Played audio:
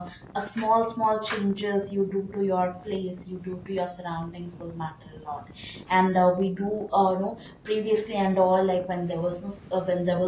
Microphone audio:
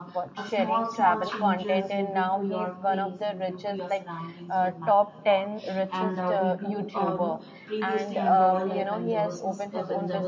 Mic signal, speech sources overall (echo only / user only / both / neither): both